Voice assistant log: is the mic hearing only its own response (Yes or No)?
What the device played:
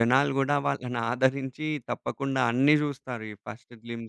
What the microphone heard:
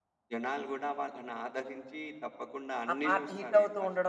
No